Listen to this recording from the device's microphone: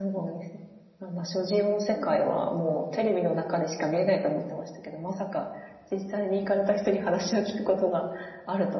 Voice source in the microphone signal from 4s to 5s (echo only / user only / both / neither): echo only